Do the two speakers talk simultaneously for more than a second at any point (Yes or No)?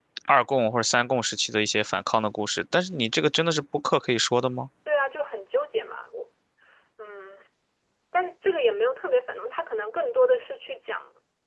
No